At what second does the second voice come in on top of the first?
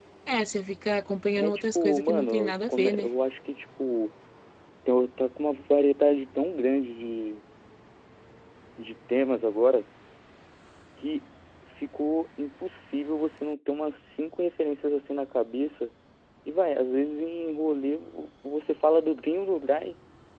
1.4 s

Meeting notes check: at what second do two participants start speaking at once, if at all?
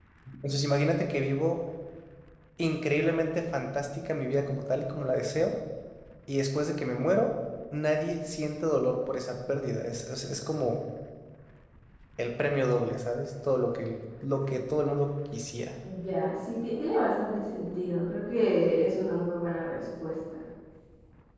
none

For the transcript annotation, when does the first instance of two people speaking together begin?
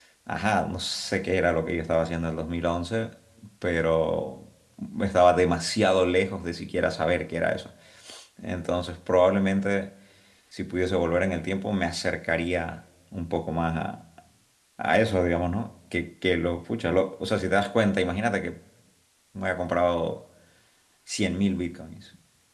none

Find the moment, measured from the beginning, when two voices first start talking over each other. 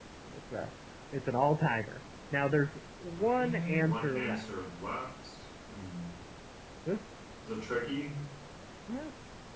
3.1 s

